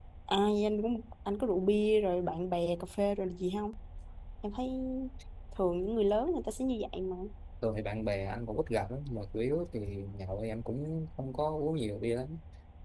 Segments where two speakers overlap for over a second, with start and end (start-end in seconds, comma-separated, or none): none